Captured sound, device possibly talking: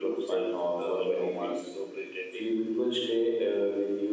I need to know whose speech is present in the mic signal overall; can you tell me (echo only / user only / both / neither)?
both